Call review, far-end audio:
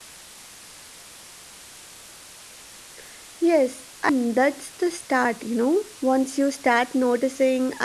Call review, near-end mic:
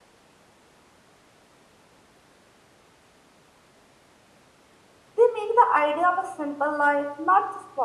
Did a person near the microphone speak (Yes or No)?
Yes